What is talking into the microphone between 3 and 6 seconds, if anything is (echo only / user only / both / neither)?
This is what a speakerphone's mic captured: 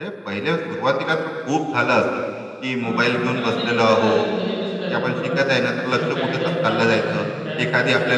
both